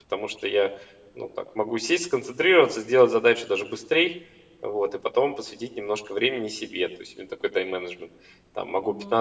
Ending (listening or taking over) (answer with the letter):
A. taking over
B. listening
B